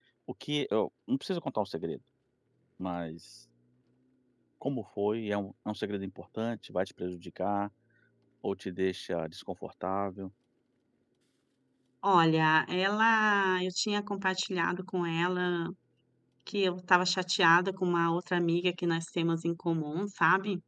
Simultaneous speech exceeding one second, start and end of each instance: none

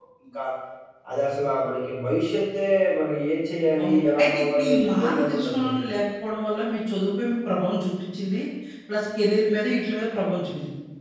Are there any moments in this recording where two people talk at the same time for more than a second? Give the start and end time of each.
3.8-5.8

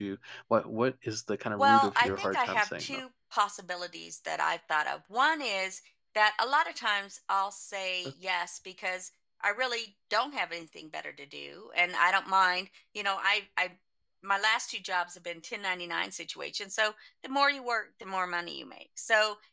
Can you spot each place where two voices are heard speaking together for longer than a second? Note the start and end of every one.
1.6-3.0

